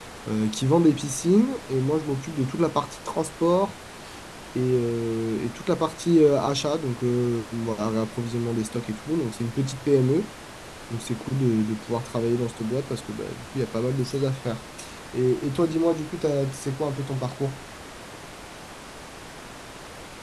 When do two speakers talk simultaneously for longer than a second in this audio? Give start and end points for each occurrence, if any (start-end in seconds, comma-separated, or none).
none